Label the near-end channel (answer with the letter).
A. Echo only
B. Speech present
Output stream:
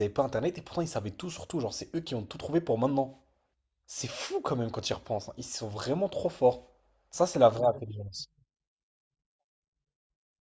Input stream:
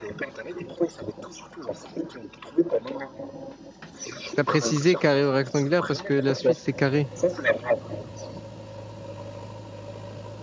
B